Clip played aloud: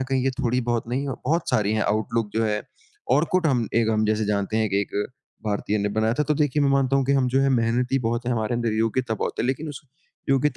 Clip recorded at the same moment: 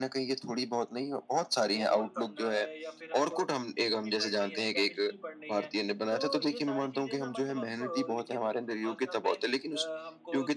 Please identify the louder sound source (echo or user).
echo